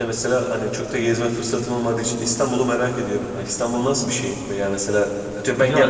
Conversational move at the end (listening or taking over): listening